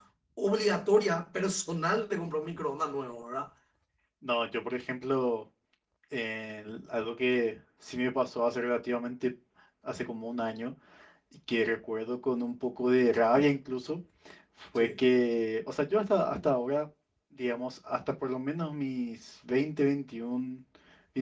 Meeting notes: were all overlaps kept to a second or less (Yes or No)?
Yes